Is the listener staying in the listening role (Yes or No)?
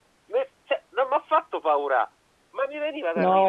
No